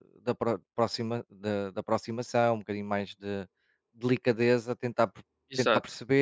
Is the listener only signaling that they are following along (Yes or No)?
Yes